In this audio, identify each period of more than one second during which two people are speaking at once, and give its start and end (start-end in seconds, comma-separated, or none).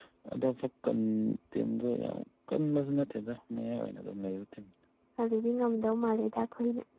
none